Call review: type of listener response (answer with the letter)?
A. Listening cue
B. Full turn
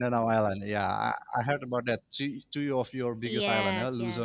B